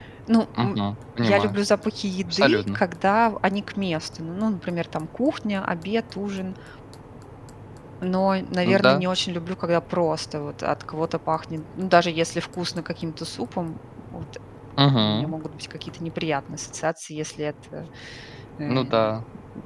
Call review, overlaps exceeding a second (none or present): none